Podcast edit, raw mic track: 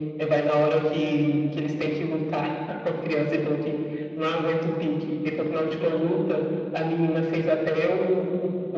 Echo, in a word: present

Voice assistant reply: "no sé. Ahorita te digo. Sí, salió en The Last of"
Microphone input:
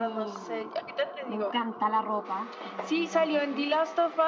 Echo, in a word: present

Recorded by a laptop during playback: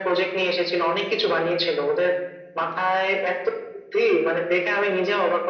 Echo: present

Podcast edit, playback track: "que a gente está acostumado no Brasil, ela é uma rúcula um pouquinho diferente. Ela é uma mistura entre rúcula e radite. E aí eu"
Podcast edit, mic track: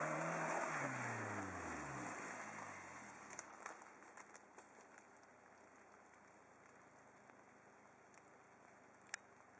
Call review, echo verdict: none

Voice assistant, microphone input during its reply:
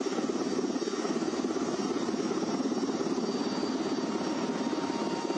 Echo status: none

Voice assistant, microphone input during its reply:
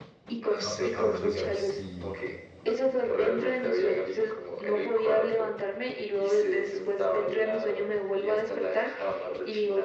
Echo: present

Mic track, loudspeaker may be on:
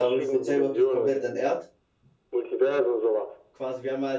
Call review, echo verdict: present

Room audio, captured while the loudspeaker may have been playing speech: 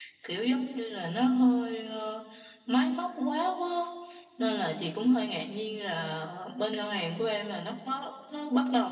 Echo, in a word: none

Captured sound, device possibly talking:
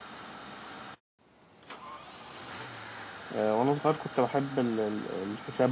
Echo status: none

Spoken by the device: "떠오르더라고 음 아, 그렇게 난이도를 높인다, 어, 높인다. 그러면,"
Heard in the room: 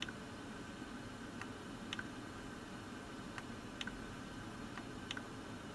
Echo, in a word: none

